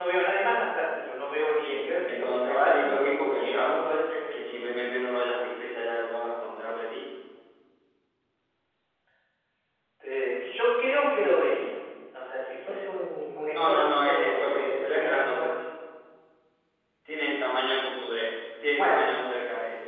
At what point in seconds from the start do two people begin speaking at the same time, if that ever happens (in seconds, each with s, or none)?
1.6 s